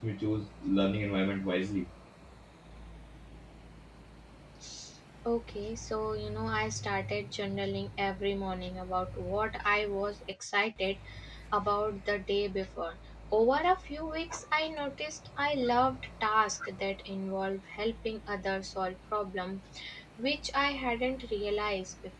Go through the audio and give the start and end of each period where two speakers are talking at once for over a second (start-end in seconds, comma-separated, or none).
none